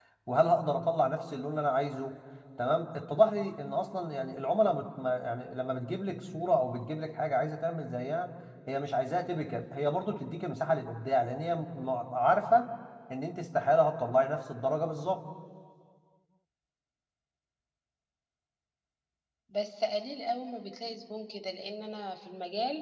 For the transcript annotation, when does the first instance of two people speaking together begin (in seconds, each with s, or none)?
none